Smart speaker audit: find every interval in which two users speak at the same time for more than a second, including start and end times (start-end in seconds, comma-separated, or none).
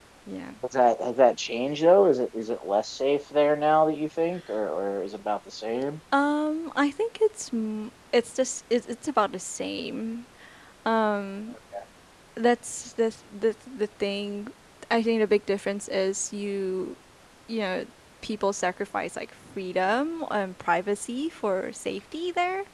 none